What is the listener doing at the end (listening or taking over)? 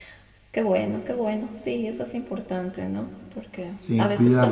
listening